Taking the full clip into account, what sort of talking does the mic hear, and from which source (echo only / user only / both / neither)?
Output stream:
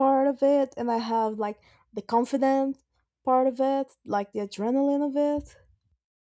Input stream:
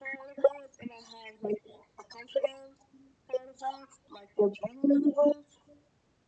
echo only